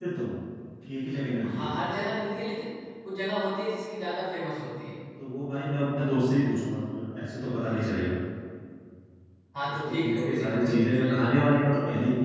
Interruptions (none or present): present